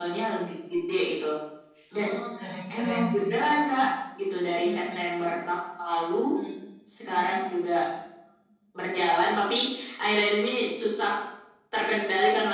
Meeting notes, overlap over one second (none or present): none